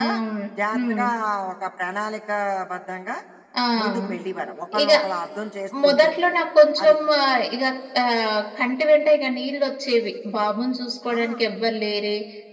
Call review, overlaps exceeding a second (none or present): none